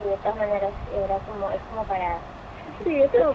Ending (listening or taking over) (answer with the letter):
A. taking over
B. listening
A